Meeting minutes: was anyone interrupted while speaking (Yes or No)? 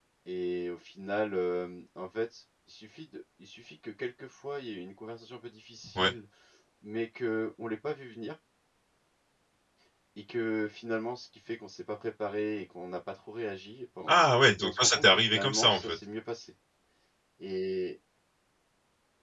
Yes